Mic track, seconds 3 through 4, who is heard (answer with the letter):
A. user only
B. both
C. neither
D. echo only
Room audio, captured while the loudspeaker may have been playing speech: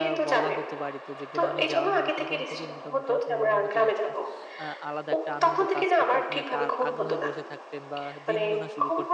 B